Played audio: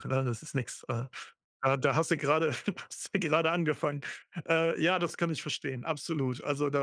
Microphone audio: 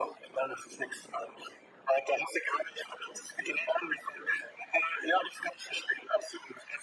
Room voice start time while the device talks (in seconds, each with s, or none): none